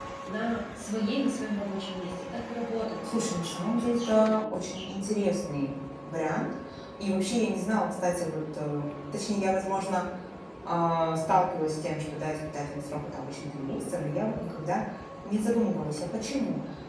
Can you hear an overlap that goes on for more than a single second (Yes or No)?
Yes